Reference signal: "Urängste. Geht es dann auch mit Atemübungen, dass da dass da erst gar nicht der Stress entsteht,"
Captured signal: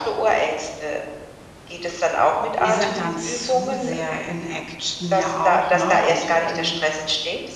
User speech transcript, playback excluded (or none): die sind dann zu sehr in Action ja auch, ne, und in